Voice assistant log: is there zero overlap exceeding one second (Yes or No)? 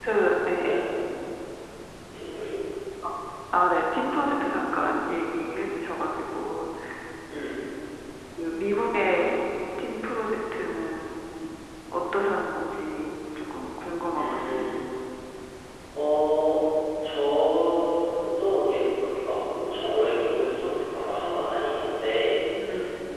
Yes